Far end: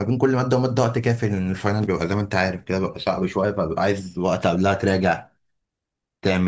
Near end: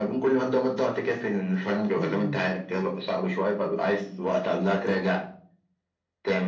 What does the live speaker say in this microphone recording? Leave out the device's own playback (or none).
امم